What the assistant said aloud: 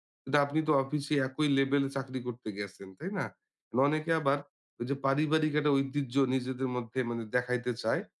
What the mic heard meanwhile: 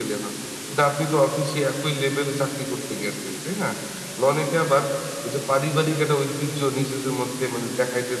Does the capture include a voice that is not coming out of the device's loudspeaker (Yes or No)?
No